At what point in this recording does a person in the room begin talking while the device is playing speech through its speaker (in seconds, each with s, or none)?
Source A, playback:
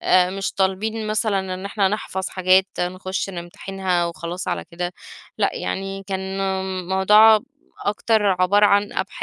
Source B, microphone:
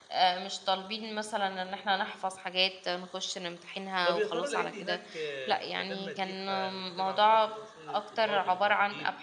4.0 s